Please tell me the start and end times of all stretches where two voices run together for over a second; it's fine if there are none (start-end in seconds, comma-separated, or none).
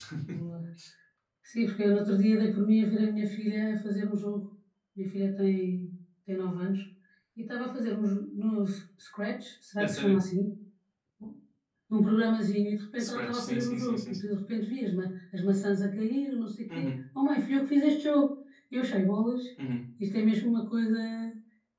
13.0-14.3